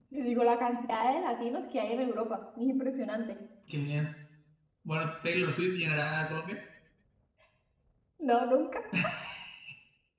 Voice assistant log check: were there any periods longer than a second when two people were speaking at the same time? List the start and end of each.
none

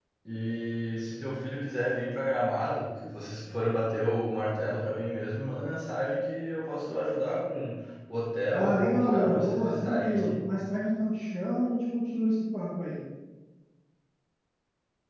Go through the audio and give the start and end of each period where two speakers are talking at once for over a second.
8.5-10.3

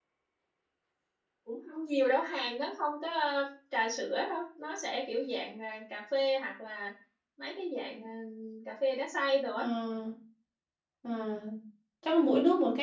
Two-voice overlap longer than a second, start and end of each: none

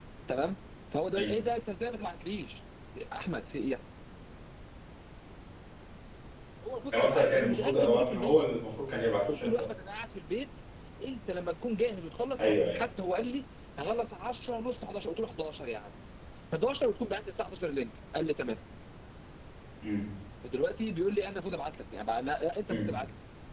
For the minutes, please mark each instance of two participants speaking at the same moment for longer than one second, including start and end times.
6.9-8.5

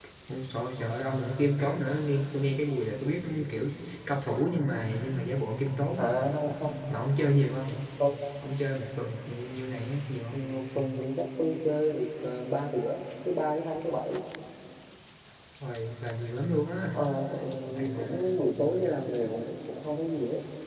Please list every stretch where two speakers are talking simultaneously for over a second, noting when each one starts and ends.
none

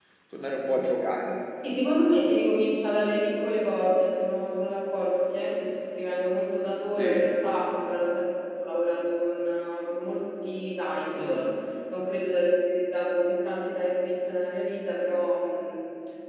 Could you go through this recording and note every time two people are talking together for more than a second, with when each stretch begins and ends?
none

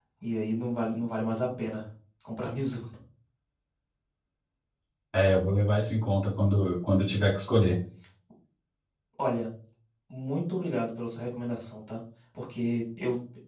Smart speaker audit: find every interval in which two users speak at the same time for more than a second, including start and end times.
none

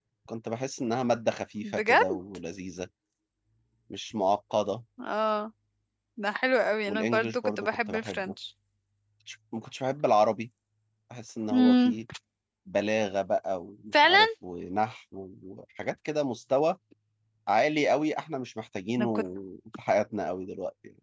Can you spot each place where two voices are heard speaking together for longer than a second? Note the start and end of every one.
6.9-8.3

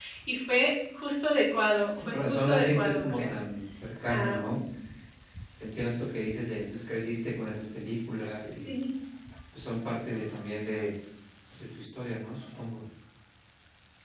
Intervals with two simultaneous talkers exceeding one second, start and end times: 2.0-3.3

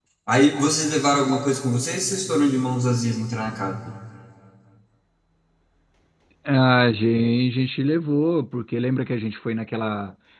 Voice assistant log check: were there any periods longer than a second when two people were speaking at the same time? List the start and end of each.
none

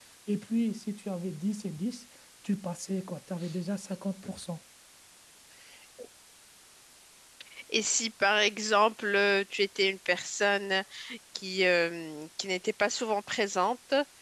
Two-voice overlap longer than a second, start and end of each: none

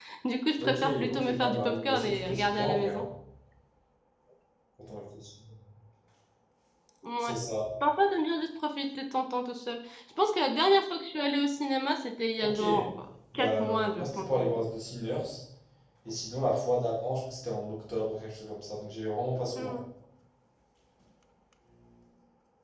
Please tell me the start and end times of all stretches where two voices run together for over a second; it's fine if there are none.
0.6-3.0, 13.3-14.7

